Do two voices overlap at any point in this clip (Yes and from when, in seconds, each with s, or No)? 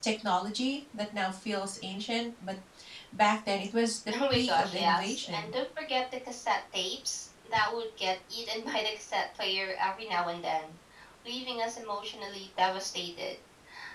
Yes, from 4.1 s